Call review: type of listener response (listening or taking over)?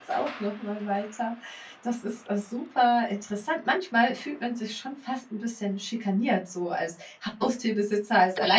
listening